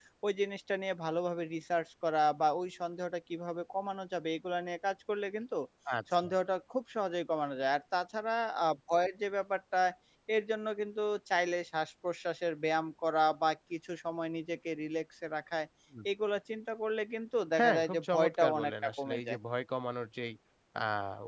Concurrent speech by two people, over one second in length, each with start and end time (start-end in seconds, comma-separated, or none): 17.6-19.4